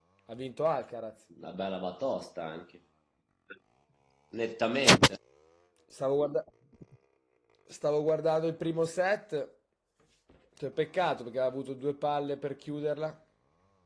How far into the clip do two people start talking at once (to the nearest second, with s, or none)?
none